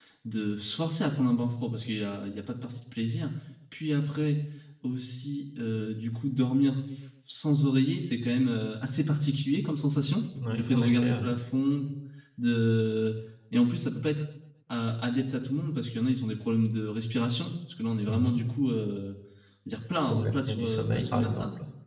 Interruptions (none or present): present